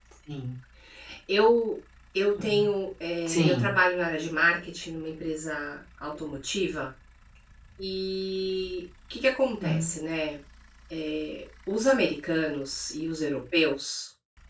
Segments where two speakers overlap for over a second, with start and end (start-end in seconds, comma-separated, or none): none